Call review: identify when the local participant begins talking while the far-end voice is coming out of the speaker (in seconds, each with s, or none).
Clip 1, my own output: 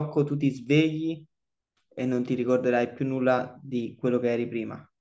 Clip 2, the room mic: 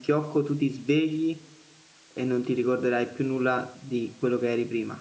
none